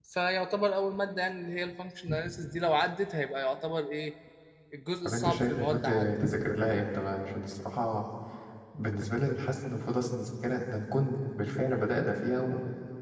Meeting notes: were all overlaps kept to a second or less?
No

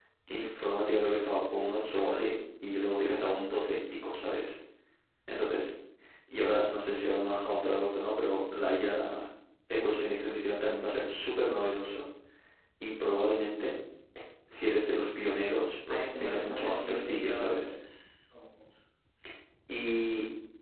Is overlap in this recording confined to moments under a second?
No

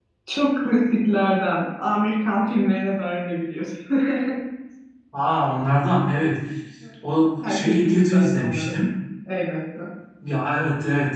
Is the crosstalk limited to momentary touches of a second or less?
No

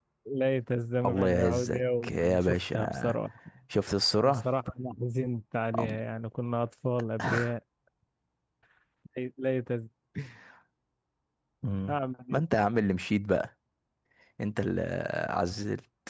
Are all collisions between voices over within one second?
No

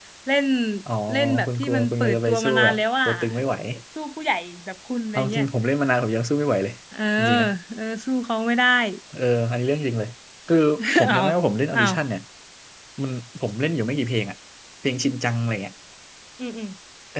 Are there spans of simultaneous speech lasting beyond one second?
Yes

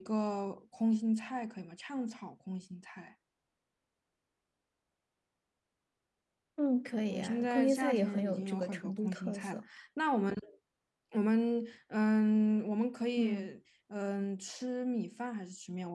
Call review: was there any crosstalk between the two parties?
Yes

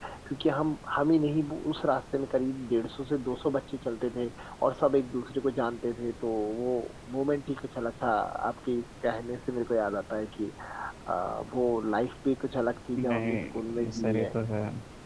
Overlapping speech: Yes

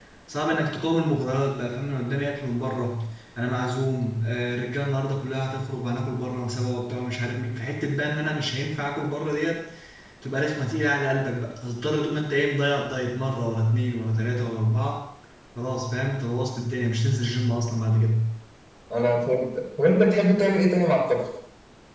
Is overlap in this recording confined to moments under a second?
Yes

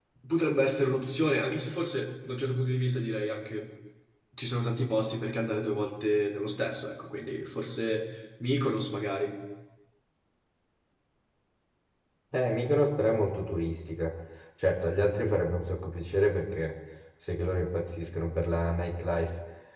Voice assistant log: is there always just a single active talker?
Yes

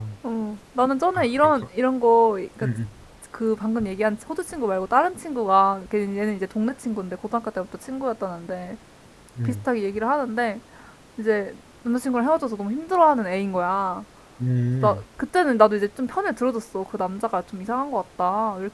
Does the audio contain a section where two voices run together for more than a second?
No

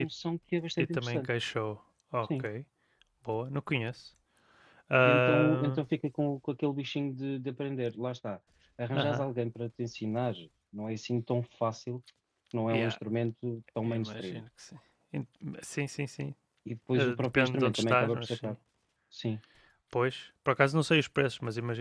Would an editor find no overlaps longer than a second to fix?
No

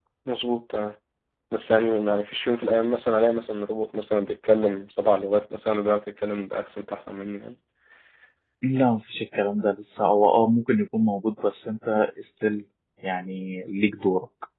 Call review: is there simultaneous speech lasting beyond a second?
No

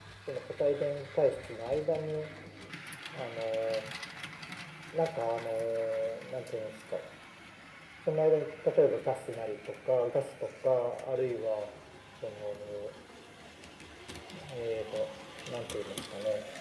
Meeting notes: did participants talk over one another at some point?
No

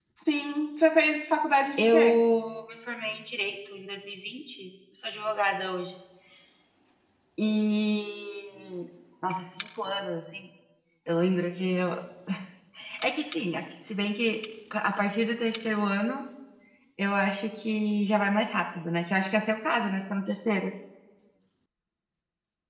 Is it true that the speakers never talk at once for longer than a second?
Yes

